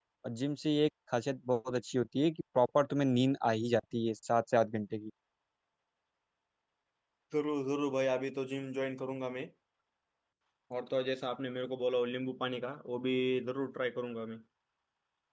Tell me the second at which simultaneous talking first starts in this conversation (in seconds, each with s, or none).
none